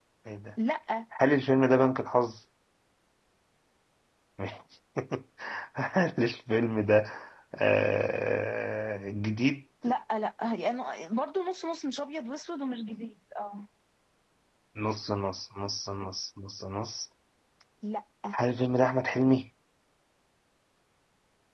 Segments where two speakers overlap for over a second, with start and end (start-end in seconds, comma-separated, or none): none